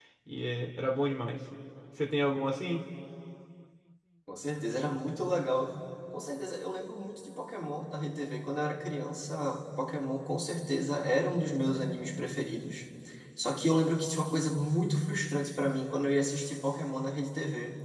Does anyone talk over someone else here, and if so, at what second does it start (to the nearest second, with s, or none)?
none